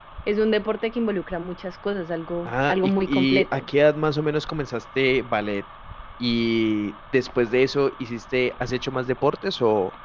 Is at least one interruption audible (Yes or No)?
Yes